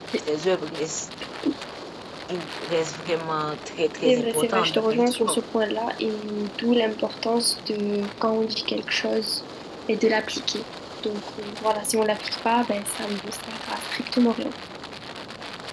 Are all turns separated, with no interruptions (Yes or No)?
No